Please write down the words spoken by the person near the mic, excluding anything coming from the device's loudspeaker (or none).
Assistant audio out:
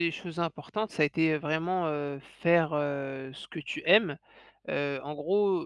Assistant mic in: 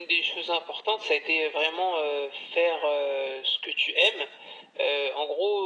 none